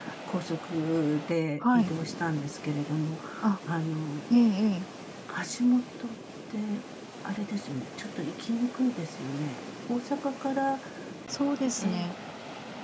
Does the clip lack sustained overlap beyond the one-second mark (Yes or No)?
Yes